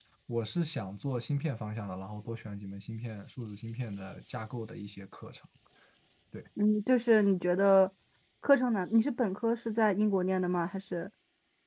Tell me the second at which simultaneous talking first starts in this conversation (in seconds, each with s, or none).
none